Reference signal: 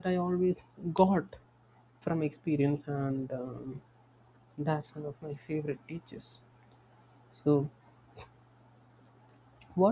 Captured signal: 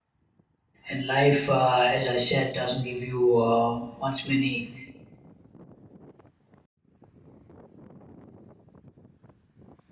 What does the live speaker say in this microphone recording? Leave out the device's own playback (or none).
and life uh, as i said doesn't give you uh, much many